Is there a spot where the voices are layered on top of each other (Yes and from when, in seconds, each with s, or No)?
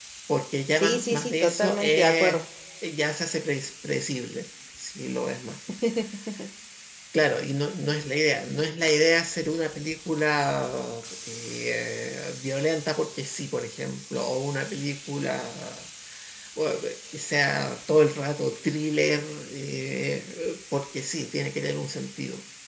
Yes, from 0.8 s